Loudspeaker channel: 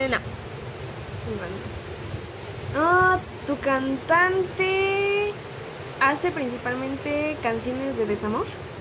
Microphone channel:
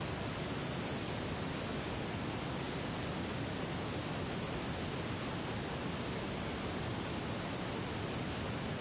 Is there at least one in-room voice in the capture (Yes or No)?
No